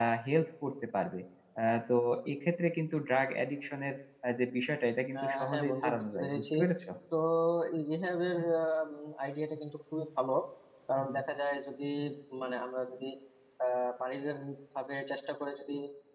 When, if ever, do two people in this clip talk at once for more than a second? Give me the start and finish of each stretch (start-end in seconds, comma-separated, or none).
5.2-6.4